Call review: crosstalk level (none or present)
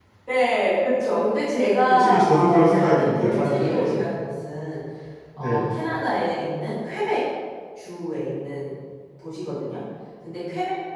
present